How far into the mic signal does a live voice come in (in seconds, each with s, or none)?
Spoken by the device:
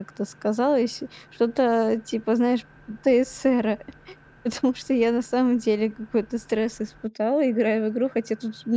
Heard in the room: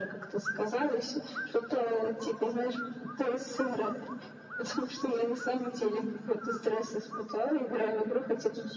none